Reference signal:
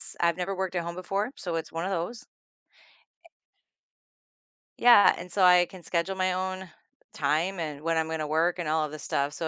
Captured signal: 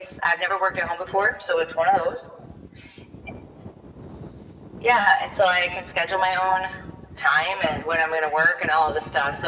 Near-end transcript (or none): none